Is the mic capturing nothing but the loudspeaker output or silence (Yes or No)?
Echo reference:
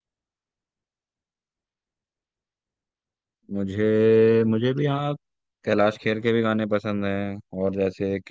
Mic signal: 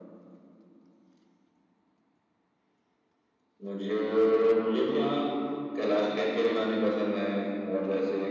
Yes